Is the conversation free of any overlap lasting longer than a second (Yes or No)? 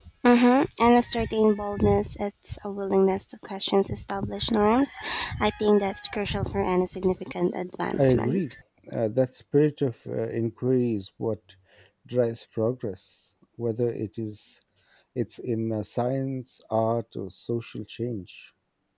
Yes